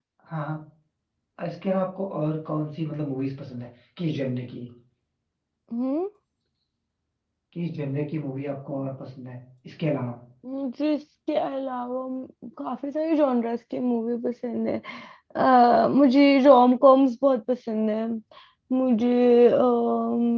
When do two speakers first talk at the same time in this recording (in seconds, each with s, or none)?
none